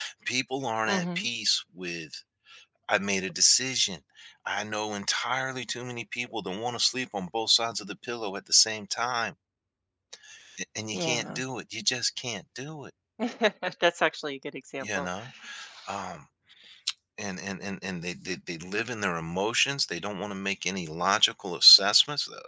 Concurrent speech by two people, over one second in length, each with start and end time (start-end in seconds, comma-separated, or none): none